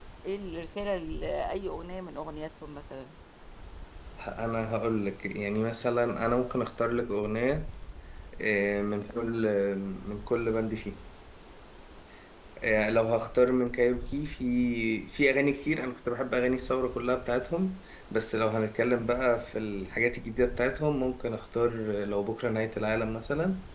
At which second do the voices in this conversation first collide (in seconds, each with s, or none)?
none